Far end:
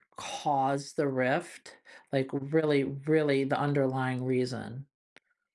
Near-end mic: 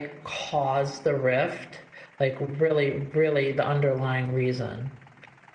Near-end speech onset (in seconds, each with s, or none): none